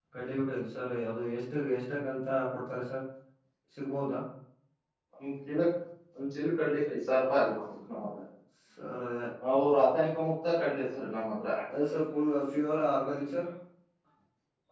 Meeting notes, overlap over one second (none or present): none